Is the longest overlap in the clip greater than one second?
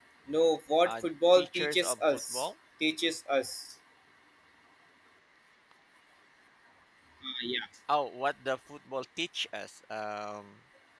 Yes, from 0.9 s

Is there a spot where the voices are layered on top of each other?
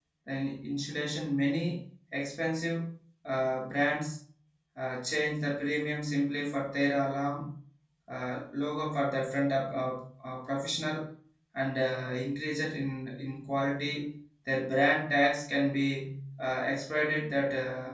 No

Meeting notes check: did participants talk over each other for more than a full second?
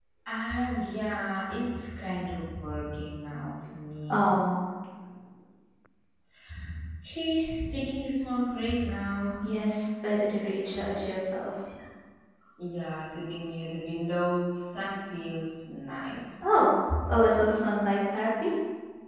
No

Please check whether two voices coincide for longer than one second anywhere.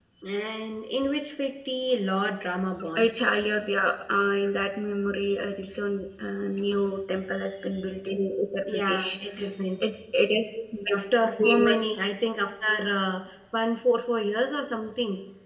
No

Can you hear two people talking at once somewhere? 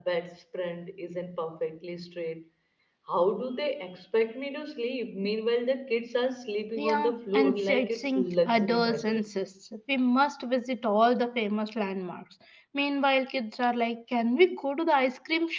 Yes, from 6.8 s

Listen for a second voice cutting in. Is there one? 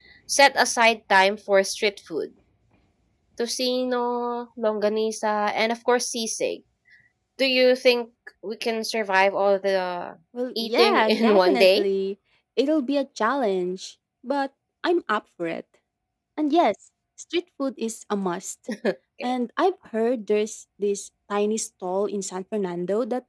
Yes, from 10.6 s

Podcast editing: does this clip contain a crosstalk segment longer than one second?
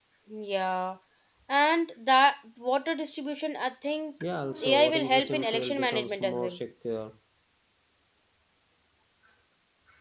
Yes, from 4.6 s

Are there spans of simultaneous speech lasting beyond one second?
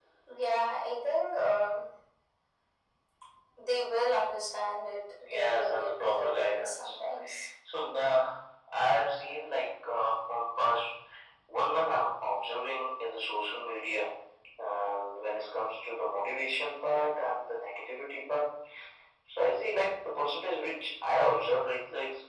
Yes, from 5.2 s

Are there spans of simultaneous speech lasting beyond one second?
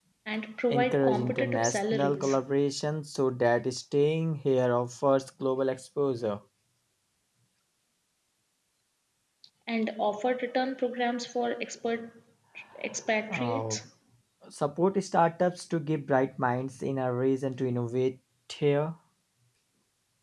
Yes, from 0.7 s

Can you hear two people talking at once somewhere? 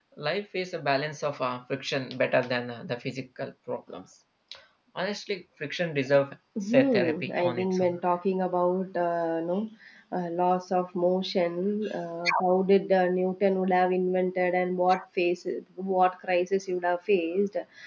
Yes, from 6.6 s

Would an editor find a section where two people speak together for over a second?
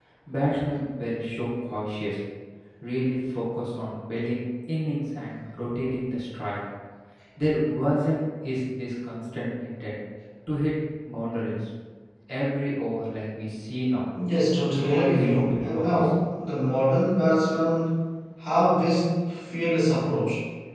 Yes, from 14.7 s

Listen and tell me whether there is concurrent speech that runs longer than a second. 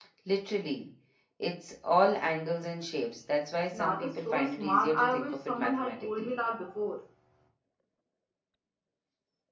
Yes, from 3.7 s

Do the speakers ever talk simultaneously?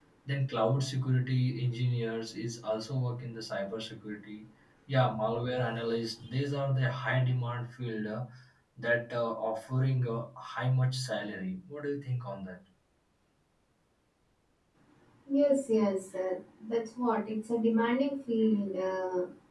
No

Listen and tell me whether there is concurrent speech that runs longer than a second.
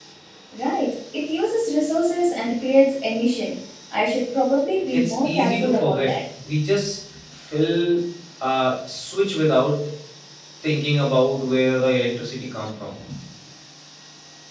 Yes, from 4.9 s

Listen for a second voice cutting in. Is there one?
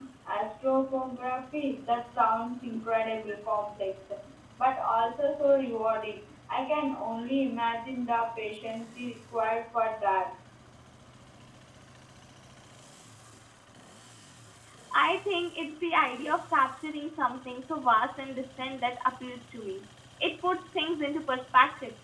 No

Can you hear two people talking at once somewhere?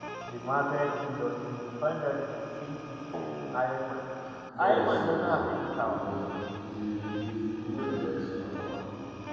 Yes, from 4.6 s

